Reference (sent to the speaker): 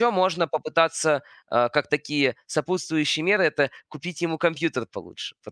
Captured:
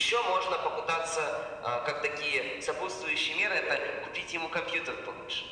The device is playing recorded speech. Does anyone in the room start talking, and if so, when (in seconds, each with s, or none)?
none